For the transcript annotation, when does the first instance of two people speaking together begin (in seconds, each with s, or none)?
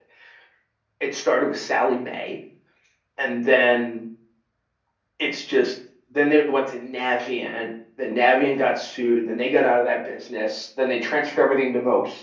none